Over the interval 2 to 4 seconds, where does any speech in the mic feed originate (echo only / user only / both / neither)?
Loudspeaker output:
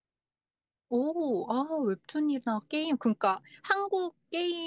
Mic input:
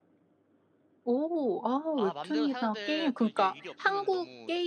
both